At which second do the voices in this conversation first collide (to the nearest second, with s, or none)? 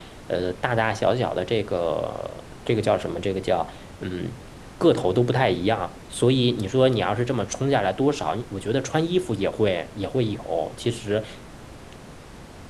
none